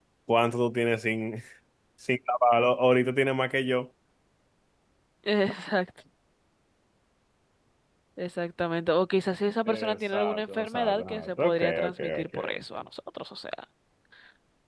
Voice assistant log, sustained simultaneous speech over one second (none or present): present